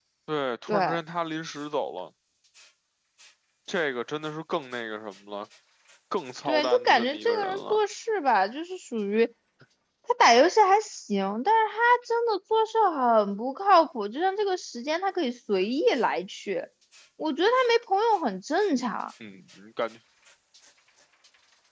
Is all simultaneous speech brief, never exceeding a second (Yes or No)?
No